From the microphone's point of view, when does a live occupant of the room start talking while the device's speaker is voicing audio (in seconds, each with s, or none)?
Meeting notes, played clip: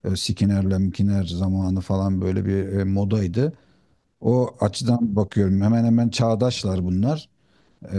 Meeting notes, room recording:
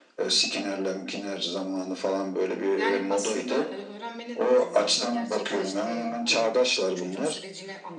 2.8 s